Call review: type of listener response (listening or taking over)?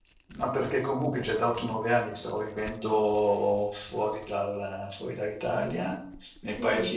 listening